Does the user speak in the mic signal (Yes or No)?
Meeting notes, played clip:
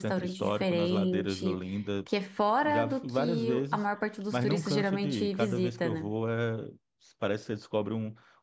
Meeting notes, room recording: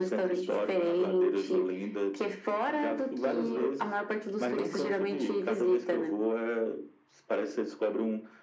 No